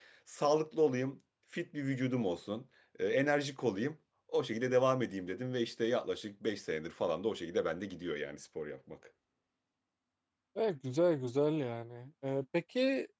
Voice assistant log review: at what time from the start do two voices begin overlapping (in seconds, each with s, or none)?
none